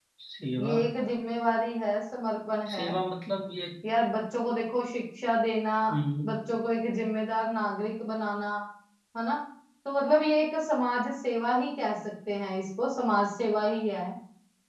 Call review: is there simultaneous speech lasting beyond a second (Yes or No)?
No